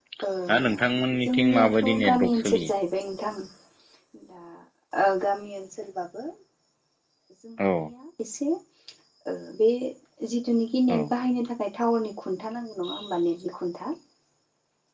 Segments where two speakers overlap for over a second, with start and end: 1.3-2.7

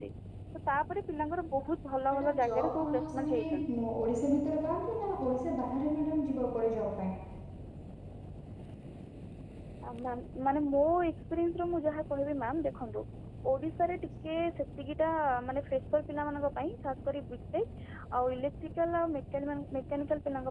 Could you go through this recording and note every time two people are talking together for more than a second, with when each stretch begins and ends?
2.1-3.4

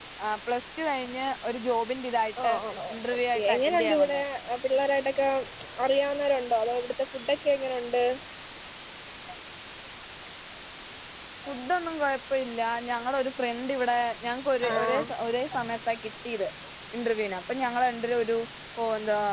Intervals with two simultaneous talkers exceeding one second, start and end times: 2.9-4.2

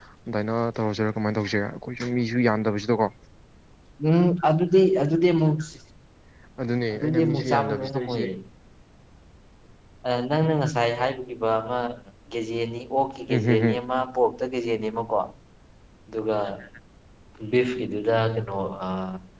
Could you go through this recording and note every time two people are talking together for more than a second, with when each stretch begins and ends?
6.9-8.2

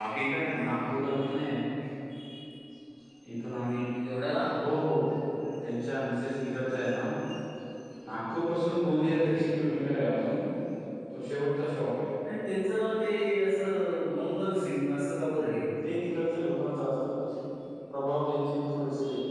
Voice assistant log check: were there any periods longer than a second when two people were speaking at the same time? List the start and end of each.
none

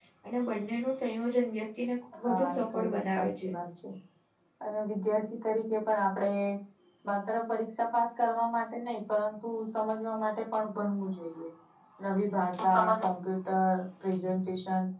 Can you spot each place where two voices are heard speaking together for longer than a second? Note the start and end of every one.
2.2-3.5

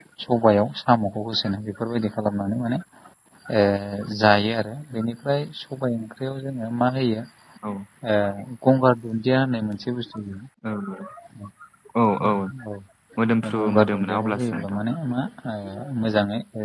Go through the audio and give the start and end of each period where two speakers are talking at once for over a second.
13.6-14.8

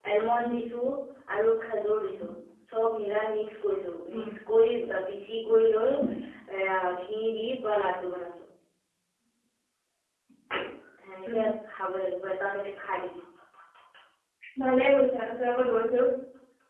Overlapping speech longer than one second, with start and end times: none

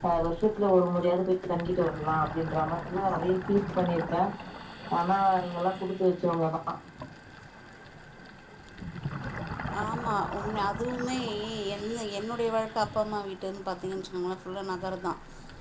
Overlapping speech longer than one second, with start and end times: none

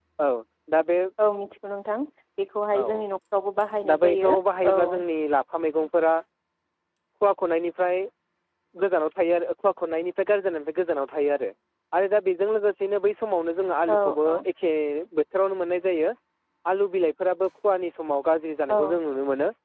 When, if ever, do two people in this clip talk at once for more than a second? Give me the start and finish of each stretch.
none

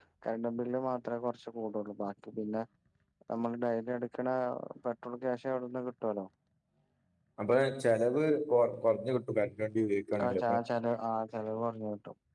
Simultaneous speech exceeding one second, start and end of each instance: none

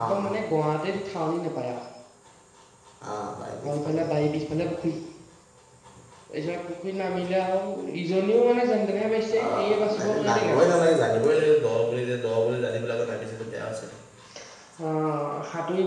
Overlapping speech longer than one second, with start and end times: 9.4-10.7

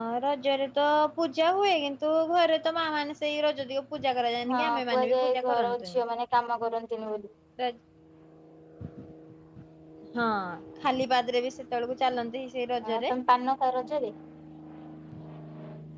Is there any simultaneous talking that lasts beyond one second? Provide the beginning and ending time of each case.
4.5-5.9

